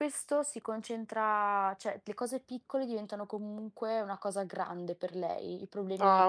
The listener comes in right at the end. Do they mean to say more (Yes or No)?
No